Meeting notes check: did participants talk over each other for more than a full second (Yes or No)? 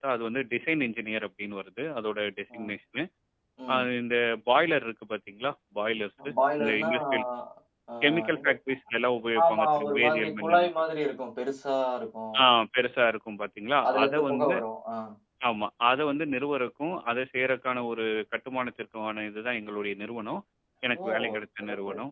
Yes